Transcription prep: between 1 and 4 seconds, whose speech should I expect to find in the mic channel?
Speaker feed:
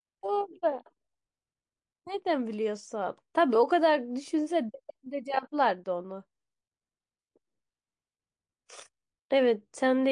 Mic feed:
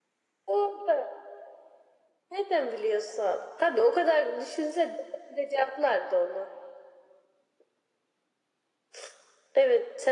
echo only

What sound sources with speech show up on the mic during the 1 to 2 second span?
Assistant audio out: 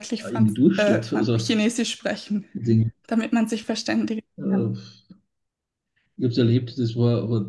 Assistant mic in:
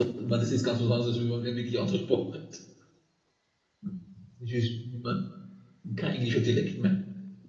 user only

